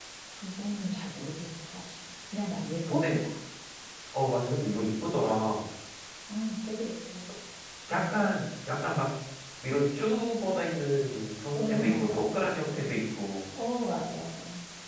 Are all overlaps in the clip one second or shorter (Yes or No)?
No